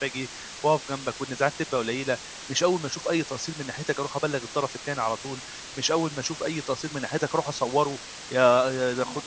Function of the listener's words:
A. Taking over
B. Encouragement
B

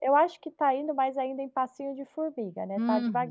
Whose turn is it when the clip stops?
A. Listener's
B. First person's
A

